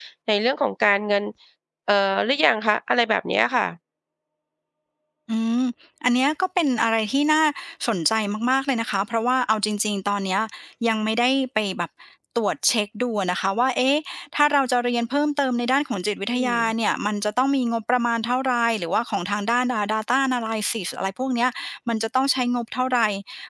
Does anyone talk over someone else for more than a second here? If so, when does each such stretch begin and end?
none

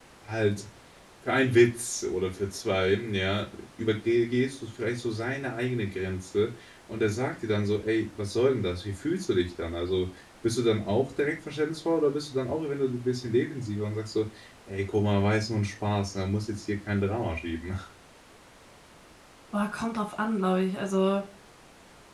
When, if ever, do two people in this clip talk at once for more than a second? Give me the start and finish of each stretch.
none

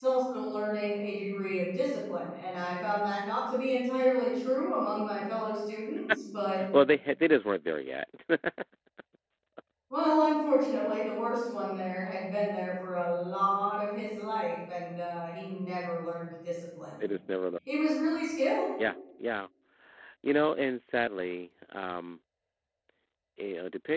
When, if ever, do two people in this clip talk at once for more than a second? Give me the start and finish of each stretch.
none

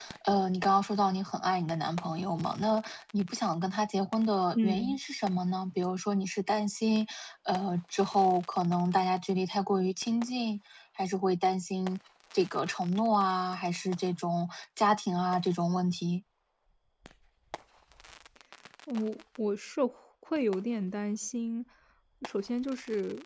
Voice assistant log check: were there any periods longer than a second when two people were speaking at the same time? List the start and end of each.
none

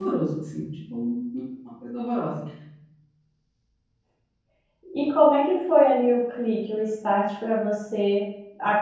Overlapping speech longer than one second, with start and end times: none

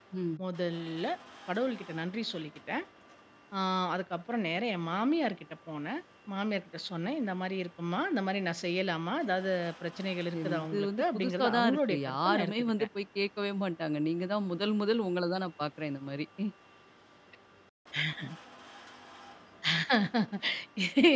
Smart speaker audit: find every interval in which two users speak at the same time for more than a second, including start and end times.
10.3-12.9

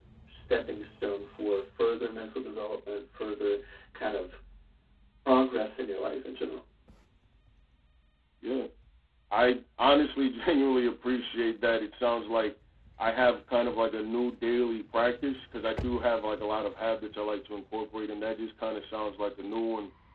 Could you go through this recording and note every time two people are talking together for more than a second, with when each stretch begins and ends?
none

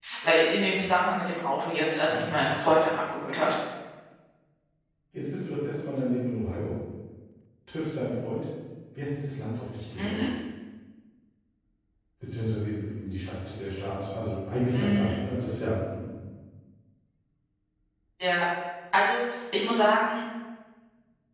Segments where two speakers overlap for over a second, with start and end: none

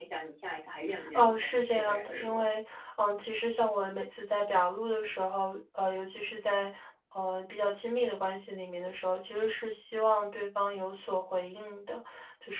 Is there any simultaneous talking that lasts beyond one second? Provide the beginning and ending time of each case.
1.1-2.4

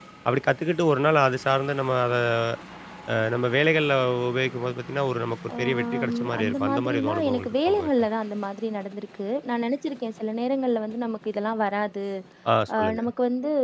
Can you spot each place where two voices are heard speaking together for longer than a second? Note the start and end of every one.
5.6-7.9

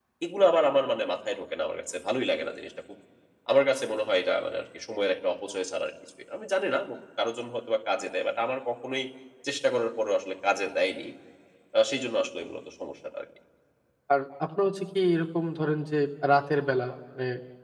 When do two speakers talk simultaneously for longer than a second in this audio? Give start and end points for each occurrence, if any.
none

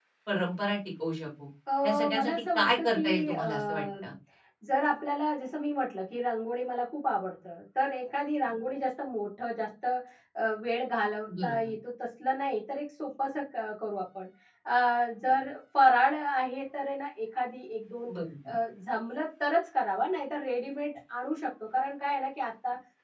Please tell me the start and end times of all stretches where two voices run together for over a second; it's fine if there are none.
1.8-3.9

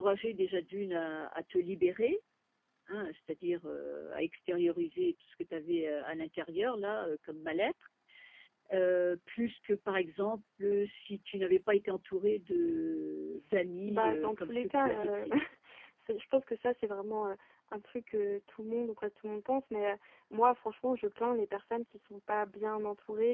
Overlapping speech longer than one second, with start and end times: 13.9-15.2

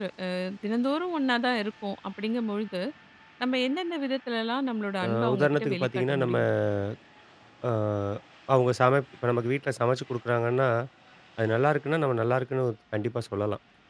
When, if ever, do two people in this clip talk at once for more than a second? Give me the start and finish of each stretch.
5.0-6.4

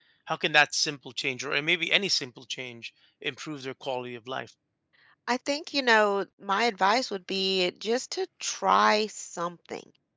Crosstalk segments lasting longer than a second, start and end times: none

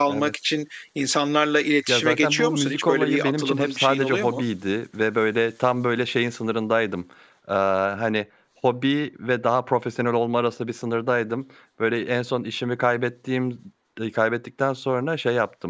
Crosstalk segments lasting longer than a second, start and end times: 1.9-4.4

